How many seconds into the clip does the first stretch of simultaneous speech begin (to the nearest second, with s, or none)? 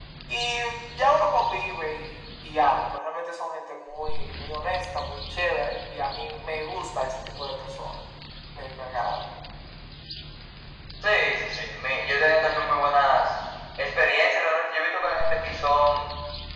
none